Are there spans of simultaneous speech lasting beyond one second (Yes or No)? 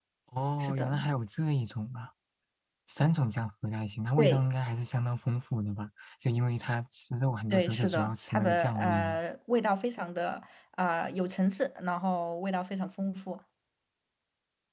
Yes